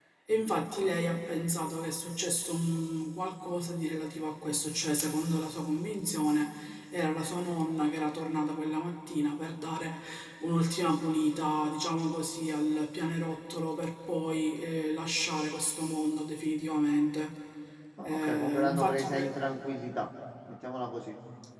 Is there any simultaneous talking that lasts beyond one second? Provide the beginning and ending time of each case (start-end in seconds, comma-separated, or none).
18.1-19.4